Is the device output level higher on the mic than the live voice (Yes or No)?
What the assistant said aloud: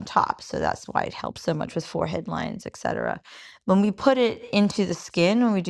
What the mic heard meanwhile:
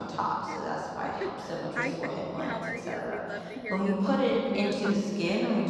Yes